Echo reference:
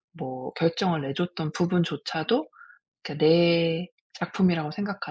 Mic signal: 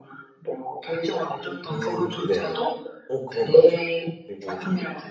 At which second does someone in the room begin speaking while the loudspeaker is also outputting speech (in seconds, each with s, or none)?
1.7 s